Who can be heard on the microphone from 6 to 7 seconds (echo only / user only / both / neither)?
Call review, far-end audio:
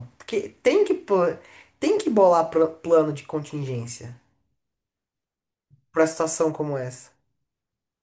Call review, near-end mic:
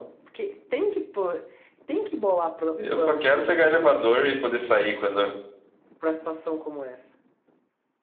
echo only